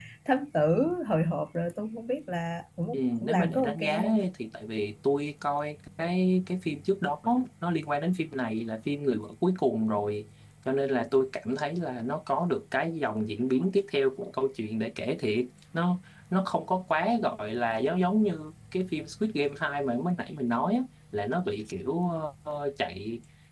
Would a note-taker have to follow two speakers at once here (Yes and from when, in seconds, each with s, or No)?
Yes, from 2.9 s